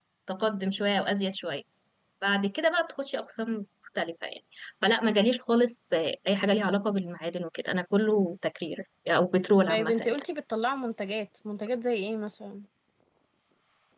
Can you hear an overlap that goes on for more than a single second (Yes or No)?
No